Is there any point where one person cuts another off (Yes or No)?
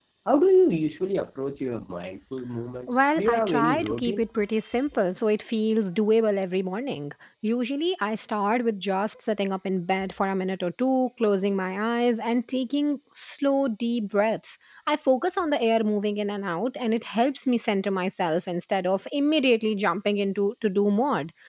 Yes